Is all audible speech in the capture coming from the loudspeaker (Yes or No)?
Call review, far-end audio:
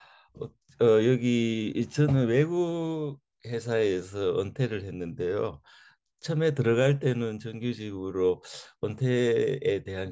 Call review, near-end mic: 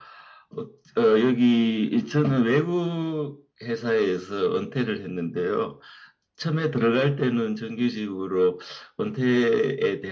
Yes